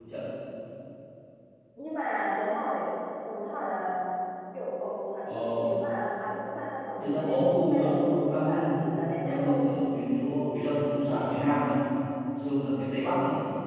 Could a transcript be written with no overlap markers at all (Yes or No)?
No